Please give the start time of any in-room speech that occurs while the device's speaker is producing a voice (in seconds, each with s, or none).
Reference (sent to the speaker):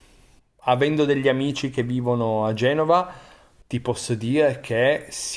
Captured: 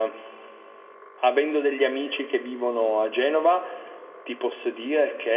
none